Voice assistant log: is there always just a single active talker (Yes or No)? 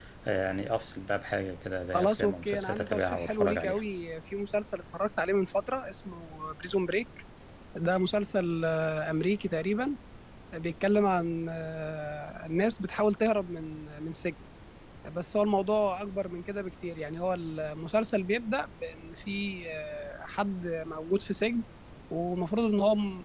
No